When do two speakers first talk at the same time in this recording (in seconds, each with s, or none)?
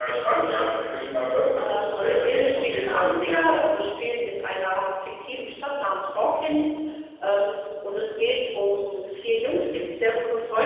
1.6 s